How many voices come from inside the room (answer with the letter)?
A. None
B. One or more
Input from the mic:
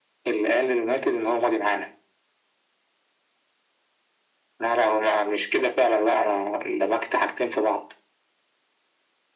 A